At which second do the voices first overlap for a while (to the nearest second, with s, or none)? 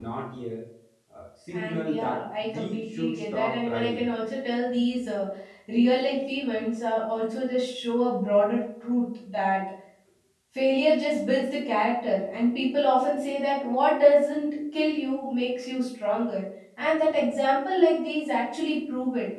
2 s